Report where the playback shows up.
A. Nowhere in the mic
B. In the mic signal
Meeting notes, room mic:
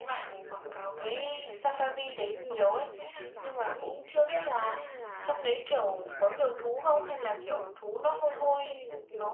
B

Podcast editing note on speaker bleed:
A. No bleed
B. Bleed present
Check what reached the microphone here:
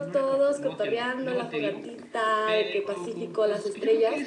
B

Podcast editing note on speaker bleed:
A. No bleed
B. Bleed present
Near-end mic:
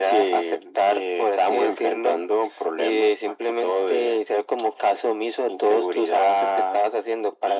B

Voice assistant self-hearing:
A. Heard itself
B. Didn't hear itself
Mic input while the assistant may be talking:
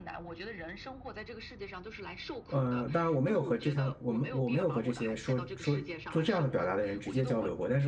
A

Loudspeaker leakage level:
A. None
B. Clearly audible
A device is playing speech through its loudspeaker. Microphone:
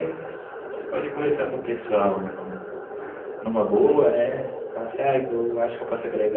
B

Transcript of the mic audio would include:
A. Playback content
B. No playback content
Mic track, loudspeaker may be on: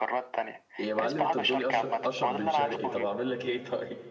A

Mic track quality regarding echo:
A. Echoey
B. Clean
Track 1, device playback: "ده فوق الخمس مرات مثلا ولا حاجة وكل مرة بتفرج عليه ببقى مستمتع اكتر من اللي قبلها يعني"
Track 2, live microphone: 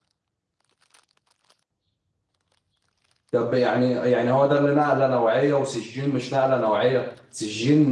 B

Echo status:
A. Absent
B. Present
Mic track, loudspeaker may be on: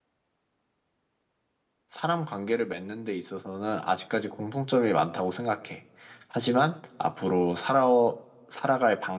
A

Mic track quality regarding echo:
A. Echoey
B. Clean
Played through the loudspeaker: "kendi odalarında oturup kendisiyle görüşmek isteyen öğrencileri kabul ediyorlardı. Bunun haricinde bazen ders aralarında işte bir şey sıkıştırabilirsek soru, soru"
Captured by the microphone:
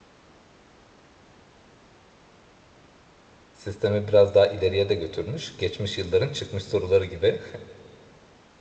B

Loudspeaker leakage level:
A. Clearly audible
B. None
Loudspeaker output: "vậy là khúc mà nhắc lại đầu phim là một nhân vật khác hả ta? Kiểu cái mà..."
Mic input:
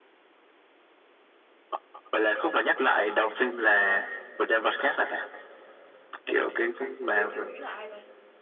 A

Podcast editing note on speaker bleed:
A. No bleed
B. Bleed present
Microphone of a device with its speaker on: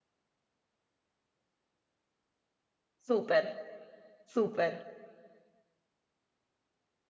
A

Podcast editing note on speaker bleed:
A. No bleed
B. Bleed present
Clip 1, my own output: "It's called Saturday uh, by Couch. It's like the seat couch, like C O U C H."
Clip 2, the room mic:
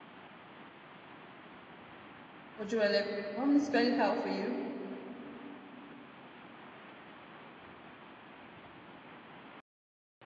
A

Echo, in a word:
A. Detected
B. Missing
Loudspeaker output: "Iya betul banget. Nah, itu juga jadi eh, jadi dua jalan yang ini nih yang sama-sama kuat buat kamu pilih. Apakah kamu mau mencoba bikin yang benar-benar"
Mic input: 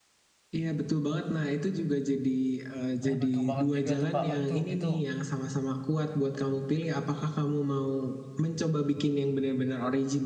A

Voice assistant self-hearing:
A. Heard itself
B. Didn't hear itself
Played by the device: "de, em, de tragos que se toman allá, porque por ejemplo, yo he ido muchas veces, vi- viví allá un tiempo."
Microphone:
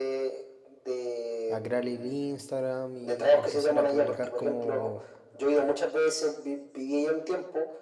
A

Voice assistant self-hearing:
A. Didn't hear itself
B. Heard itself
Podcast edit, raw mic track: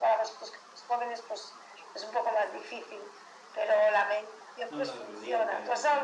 B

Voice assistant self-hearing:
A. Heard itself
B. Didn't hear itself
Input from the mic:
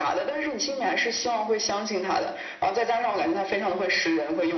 A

